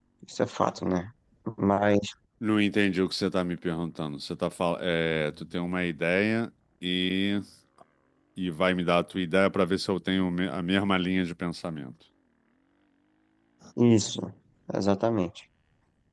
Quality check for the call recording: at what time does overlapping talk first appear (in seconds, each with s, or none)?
none